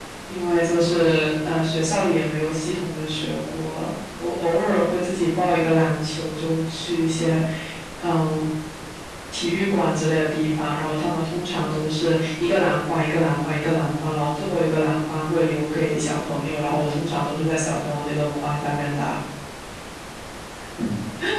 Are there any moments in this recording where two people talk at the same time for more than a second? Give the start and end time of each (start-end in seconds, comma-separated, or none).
none